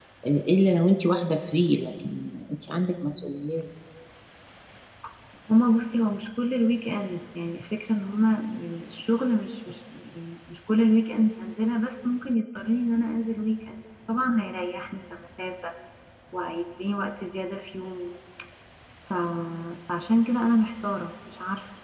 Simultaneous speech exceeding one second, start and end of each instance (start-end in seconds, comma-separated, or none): none